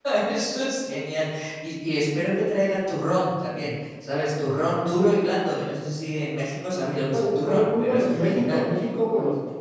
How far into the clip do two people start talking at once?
7.1 s

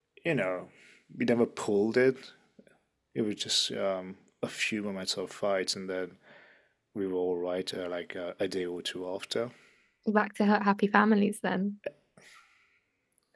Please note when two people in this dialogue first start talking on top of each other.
none

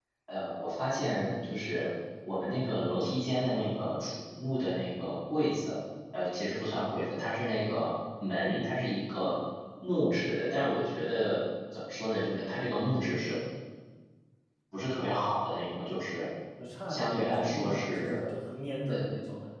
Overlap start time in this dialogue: 16.9 s

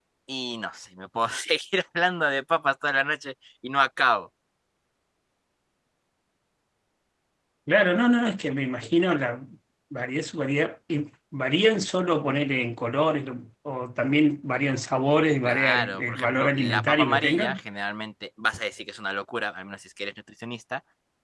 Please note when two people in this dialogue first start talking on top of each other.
15.4 s

